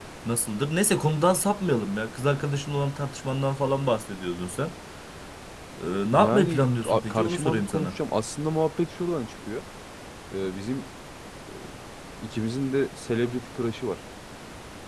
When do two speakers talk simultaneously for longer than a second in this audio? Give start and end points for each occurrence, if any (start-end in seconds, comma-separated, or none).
6.2-8.0